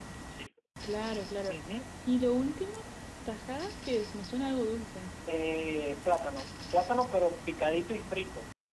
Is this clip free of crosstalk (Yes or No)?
Yes